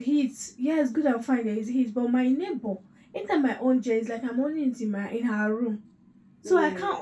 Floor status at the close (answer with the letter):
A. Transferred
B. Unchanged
B